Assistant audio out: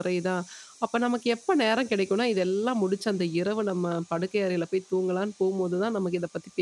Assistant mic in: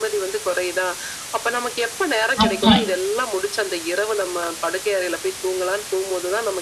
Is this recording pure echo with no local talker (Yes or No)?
No